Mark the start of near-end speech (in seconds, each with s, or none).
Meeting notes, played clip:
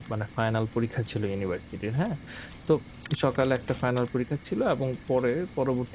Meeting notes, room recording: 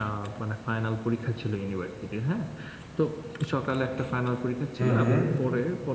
4.8 s